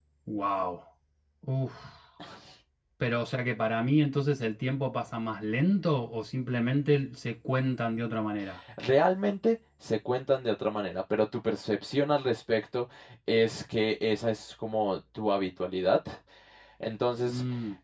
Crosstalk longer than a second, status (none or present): none